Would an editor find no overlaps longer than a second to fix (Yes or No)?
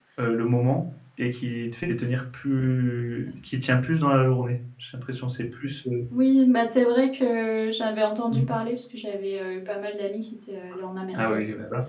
Yes